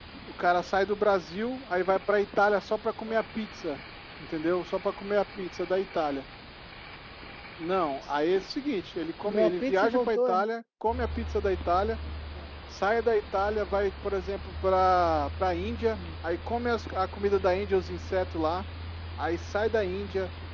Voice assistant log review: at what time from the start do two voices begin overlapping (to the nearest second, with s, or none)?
9 s